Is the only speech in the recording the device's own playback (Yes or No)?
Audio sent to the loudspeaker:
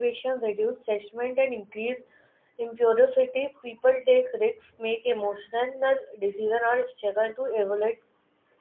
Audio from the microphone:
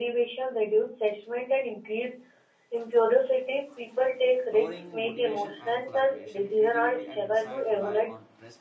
No